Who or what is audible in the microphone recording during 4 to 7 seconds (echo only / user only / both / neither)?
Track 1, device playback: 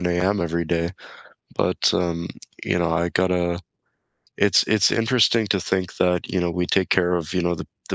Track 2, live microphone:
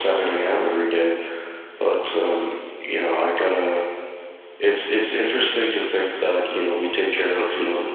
echo only